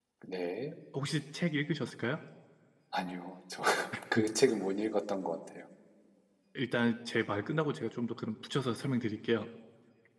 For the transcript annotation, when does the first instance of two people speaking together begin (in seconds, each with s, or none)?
none